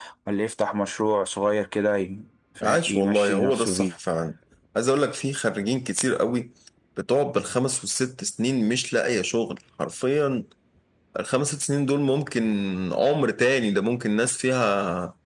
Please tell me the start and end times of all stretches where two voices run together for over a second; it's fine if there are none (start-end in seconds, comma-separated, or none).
2.6-3.9